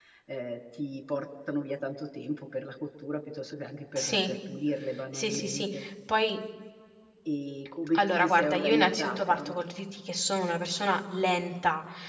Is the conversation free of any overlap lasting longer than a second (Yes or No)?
No